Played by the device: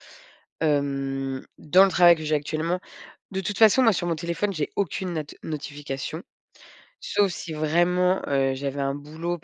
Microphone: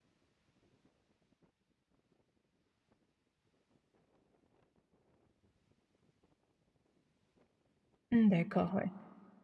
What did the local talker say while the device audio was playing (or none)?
Mmh, d'accord, ouais.